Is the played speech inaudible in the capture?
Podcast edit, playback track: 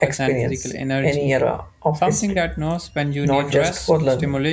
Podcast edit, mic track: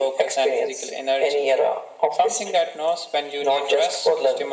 No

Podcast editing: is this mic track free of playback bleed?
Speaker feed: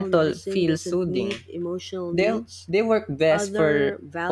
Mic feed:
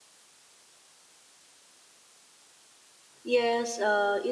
Yes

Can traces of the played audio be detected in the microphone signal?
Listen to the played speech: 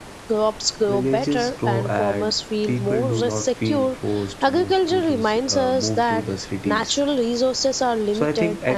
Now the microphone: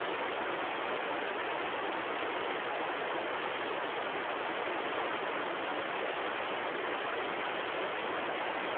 No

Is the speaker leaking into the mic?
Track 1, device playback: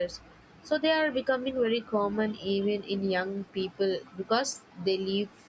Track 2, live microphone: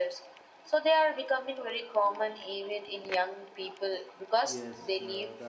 Yes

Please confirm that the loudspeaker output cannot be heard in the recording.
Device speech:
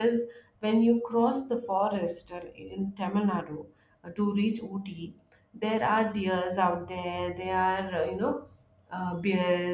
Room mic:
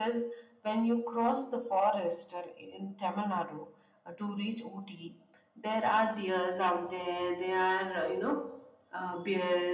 No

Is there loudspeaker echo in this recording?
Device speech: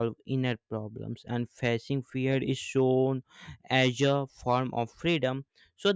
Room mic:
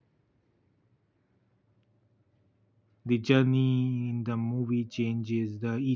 No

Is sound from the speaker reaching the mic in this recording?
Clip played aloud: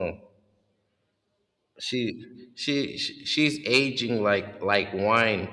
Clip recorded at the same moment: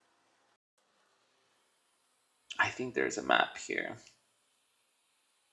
No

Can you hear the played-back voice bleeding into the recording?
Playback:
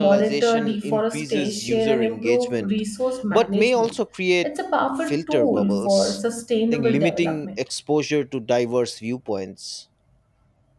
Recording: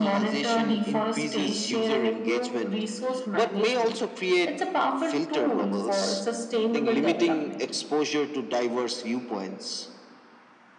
Yes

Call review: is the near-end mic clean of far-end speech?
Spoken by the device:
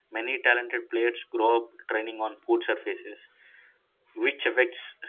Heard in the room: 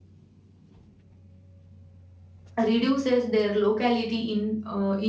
Yes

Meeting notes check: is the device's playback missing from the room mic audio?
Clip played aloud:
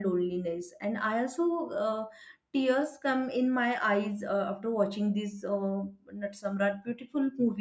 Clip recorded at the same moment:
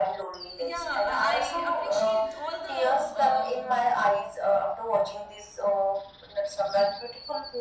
No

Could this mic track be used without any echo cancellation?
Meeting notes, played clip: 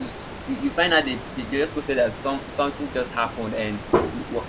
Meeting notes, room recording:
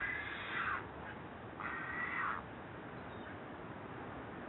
Yes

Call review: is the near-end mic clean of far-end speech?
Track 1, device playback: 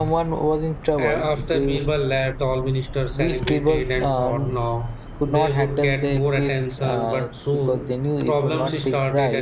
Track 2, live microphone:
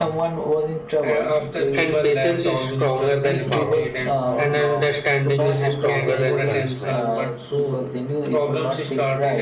No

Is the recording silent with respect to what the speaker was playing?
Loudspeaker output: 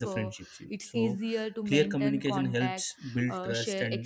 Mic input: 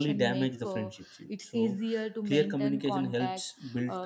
No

